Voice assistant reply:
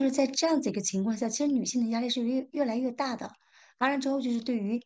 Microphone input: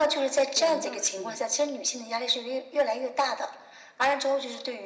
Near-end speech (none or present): present